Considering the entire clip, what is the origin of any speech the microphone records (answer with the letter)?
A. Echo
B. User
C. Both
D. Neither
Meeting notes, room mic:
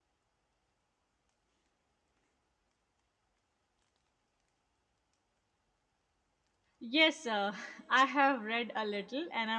B